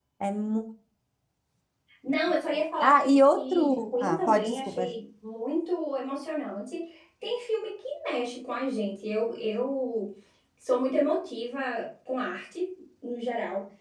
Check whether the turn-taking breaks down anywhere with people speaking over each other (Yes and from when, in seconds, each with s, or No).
Yes, from 2.8 s